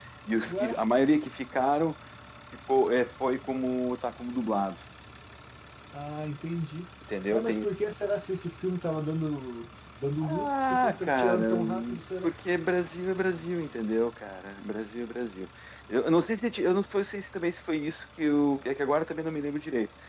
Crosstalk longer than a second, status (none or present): present